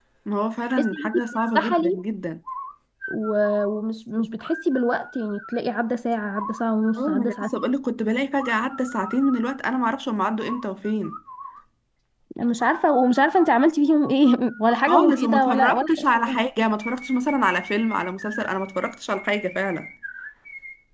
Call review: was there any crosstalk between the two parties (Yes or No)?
Yes